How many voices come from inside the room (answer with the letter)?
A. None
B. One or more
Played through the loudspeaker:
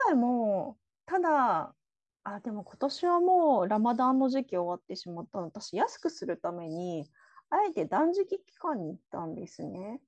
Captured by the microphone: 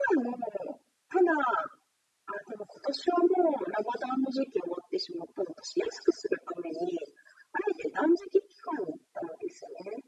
A